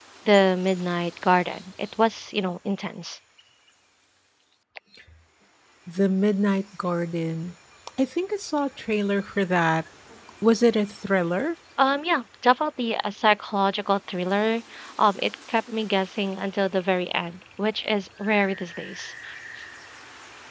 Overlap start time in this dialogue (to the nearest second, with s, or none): none